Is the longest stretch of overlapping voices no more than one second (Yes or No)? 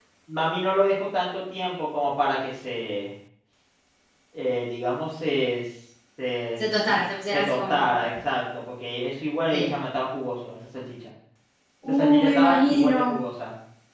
No